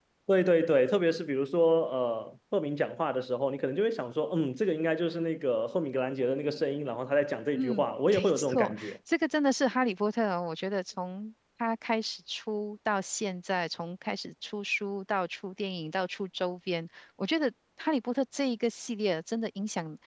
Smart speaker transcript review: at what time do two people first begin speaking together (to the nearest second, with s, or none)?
8 s